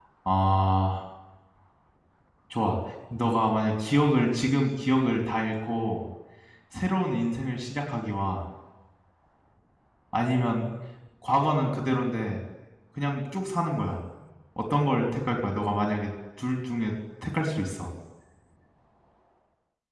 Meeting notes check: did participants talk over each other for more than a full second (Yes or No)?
No